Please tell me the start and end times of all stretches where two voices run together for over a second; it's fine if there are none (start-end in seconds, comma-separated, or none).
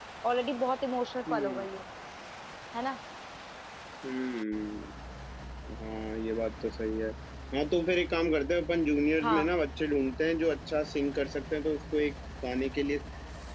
none